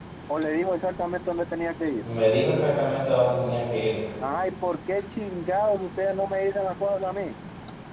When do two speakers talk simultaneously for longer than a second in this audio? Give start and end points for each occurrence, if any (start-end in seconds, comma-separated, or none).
none